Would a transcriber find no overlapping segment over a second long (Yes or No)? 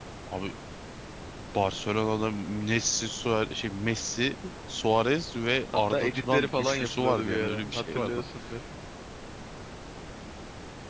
No